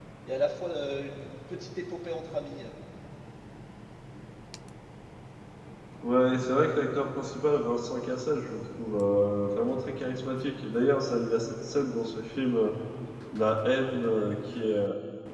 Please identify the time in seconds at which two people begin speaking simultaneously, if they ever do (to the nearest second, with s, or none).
none